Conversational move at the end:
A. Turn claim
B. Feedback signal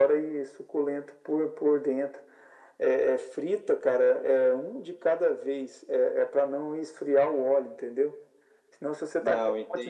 B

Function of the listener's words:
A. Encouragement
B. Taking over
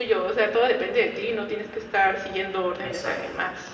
B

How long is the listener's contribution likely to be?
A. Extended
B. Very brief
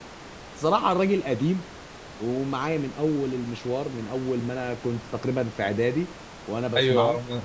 A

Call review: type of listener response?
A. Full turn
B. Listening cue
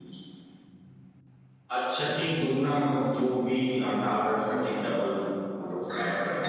A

